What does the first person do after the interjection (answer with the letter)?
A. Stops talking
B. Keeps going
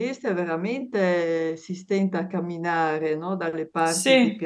B